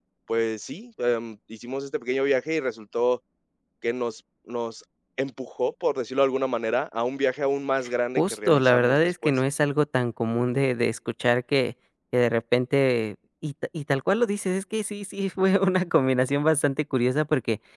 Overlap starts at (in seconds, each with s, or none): 8.2 s